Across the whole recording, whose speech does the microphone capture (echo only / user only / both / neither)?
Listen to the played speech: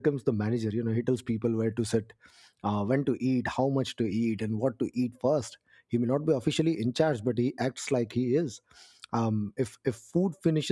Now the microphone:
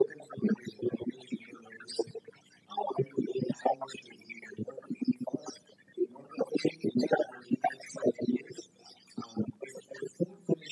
echo only